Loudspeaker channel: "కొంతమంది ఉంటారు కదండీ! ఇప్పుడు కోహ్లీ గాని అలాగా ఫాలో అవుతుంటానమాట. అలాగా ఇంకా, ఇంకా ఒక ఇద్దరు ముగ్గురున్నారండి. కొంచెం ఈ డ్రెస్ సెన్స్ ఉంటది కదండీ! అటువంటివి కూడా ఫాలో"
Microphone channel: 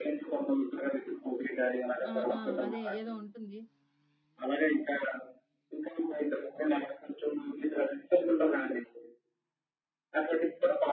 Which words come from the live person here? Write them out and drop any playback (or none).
ఆ! ఆ! అదే ఏదో ఉంటుంది.